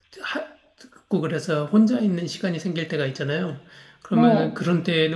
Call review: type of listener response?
listening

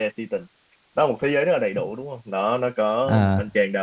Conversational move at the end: listening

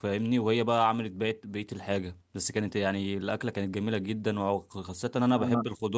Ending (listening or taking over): listening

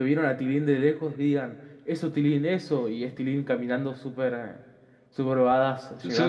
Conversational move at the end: taking over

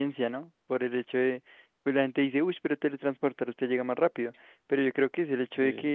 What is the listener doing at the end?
listening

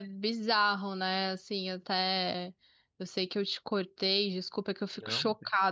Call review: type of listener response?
listening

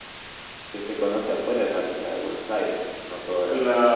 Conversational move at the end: taking over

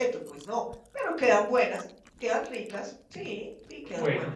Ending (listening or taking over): taking over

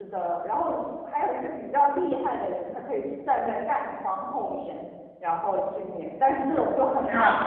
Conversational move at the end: listening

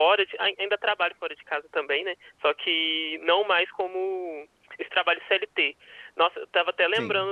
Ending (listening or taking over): listening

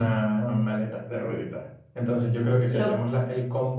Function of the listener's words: listening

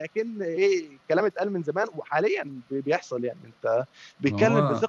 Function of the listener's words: listening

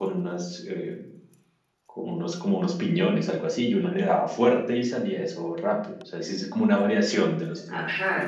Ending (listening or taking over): taking over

